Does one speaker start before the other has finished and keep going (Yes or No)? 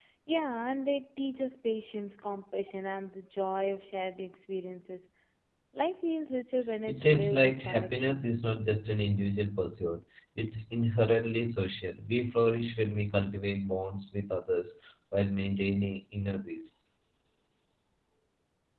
Yes